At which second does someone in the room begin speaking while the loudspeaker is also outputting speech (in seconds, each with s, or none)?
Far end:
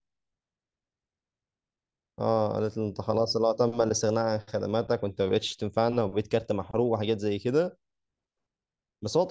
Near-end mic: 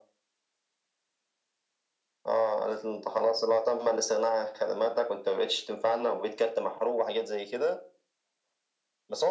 none